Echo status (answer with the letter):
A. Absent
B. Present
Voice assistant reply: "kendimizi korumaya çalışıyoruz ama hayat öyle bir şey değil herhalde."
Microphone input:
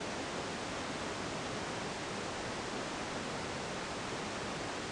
A